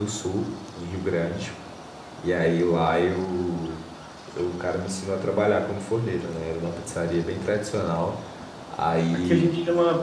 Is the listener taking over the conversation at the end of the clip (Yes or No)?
Yes